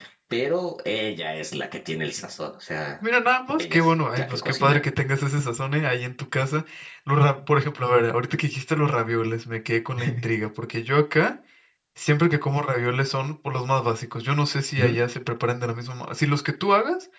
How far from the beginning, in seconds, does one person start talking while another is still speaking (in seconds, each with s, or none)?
3.6 s